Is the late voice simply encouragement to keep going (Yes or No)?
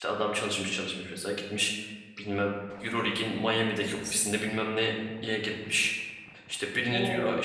Yes